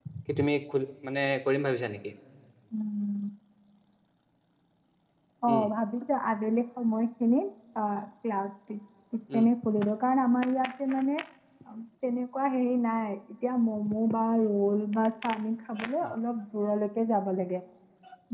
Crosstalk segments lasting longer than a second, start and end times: none

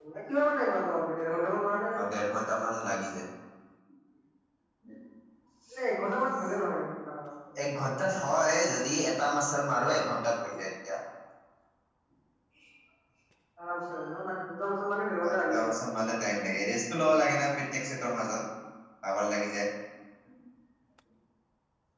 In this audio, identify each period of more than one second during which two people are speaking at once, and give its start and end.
none

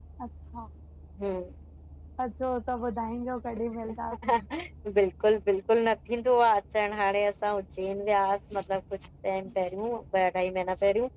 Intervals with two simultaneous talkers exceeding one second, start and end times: none

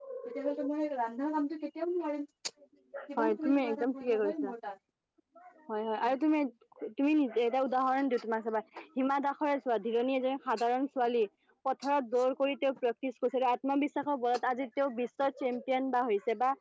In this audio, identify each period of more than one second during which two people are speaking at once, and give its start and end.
3.1-4.5

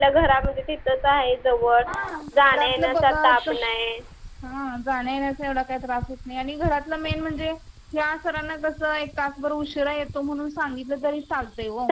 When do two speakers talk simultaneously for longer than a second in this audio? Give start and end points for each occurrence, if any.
2.5-3.8

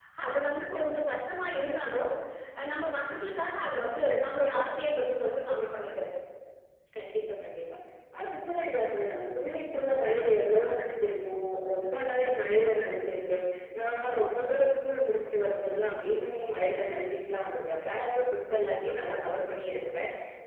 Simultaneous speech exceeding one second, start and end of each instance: none

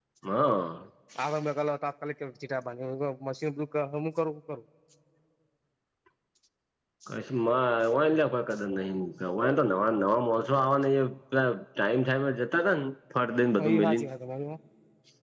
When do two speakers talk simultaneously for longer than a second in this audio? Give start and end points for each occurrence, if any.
none

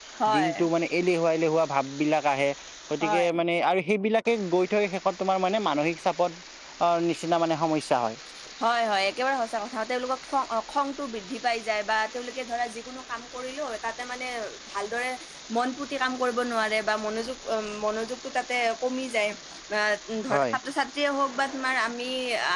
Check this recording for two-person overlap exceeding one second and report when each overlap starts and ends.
none

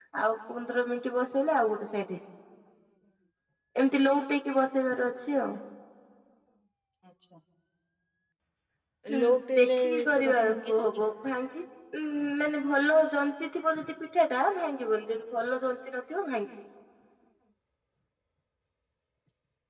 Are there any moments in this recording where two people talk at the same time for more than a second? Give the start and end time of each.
9.2-11.0

